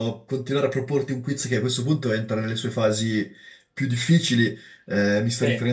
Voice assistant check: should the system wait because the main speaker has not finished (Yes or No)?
Yes